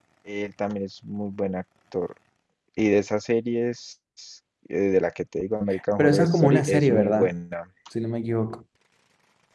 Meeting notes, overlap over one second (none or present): present